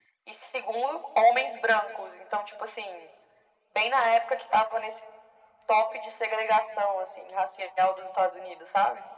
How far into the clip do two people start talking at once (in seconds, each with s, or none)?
none